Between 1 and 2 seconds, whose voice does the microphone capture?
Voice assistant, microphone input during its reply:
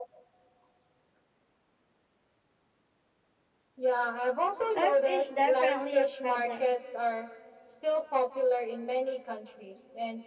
neither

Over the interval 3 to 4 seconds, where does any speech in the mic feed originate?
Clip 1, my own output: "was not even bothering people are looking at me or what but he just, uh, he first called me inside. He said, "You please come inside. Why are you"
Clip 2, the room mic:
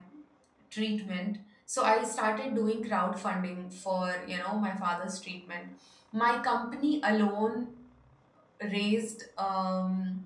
user only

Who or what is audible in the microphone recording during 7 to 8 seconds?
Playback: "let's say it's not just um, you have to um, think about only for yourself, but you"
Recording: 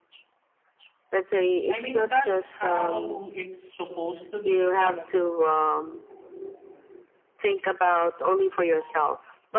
echo only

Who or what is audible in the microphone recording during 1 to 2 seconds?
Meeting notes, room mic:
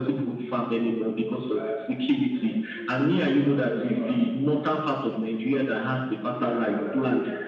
echo only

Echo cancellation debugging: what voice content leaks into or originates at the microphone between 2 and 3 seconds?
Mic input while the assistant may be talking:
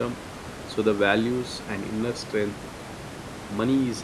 user only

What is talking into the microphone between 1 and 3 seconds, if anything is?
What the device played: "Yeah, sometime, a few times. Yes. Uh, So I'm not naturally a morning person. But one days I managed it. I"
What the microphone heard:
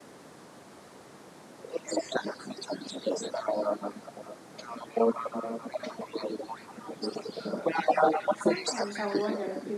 echo only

